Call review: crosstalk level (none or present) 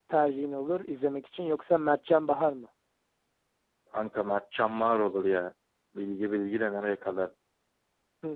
none